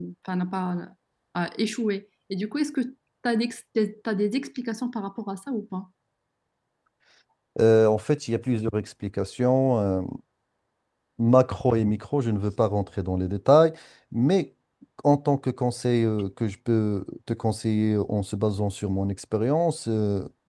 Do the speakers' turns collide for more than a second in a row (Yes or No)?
No